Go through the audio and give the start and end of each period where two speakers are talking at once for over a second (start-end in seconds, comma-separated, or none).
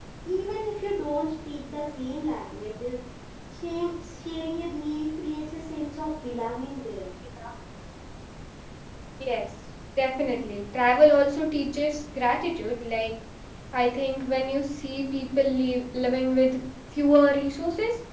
none